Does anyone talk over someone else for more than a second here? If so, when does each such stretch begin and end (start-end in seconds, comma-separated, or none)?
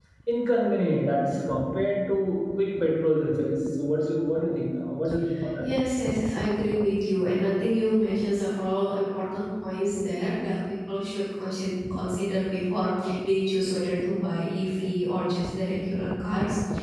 none